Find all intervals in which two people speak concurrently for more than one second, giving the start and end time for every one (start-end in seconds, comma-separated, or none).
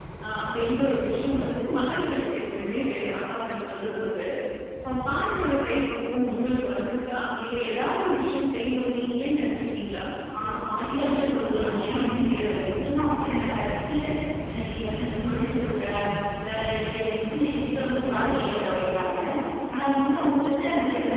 10.8-12.7